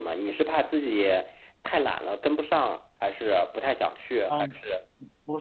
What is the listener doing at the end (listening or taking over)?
taking over